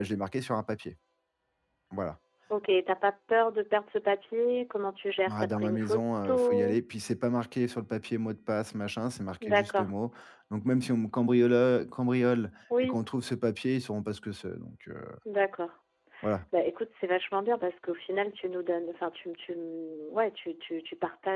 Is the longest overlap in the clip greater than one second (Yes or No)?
Yes